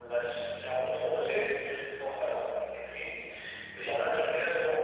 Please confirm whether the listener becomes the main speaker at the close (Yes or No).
No